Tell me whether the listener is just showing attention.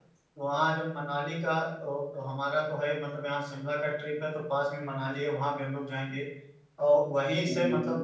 Yes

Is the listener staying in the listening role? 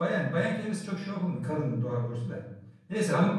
Yes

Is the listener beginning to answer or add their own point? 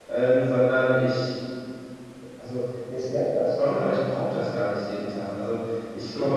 No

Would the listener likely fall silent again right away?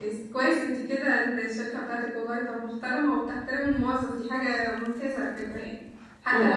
Yes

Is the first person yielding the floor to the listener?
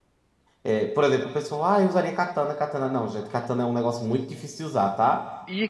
Yes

